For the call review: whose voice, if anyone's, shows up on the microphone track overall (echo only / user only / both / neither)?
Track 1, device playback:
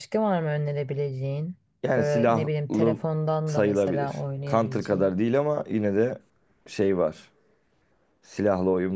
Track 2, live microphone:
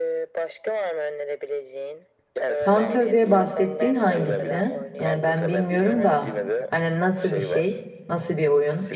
both